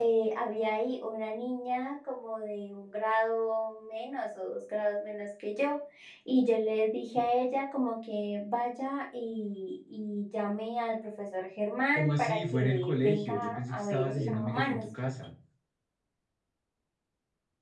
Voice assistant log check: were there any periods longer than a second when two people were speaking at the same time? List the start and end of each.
11.9-14.8

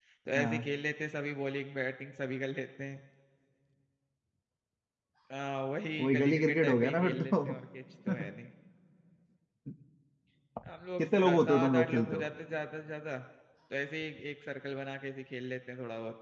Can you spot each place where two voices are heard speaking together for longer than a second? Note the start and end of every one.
6.0-7.6, 11.0-12.2

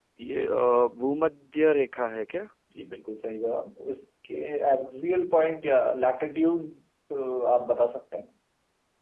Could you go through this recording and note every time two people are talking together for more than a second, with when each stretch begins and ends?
none

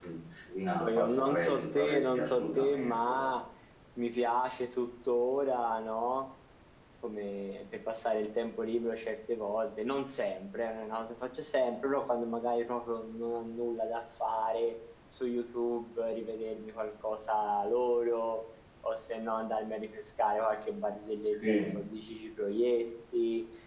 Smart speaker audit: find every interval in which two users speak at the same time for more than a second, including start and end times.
0.8-3.3

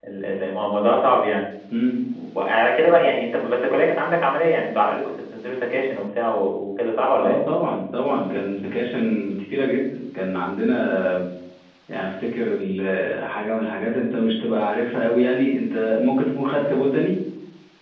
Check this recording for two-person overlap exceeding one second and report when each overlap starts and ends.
none

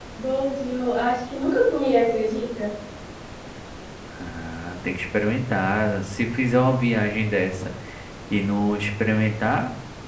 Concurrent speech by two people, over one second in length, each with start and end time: none

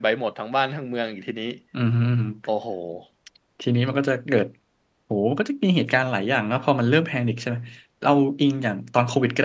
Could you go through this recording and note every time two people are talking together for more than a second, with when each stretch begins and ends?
none

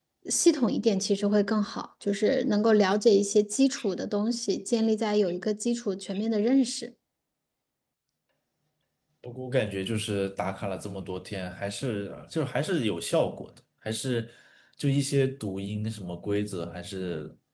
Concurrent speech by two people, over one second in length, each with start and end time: none

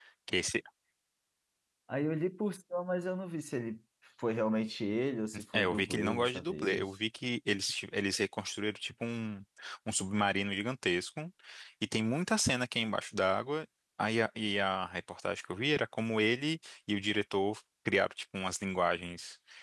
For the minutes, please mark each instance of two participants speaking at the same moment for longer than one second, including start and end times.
5.5-6.9

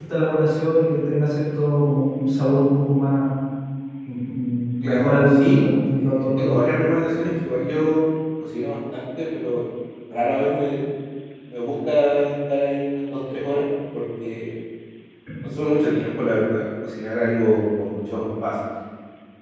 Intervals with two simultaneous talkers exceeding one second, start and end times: 4.8-6.6

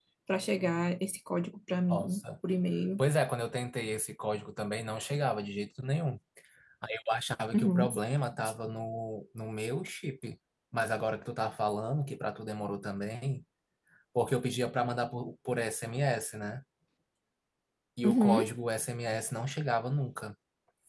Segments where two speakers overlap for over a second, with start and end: none

